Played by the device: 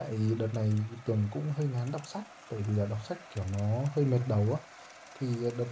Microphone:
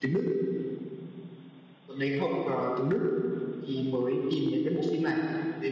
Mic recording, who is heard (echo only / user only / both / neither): user only